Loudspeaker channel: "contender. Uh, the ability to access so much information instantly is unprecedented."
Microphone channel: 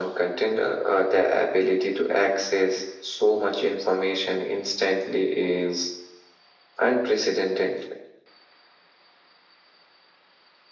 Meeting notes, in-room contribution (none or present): none